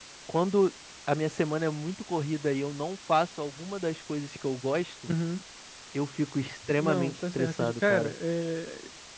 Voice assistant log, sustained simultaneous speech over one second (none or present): present